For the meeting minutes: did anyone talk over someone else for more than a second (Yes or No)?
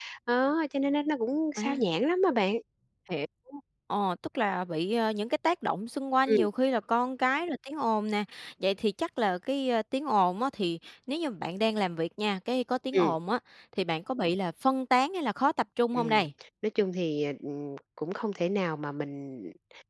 No